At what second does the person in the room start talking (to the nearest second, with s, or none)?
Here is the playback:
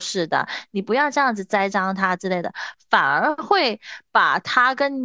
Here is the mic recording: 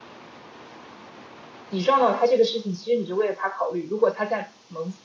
2 s